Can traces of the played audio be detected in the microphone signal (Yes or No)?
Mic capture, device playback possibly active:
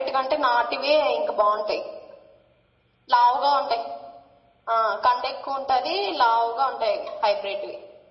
Yes